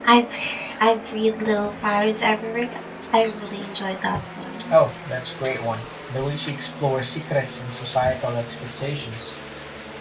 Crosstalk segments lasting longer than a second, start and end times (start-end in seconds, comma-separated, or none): none